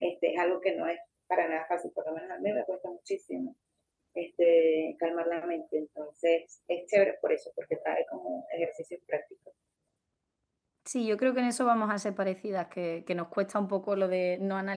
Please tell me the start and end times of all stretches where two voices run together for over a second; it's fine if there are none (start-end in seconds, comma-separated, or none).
none